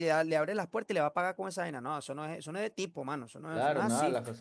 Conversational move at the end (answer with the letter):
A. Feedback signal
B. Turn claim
B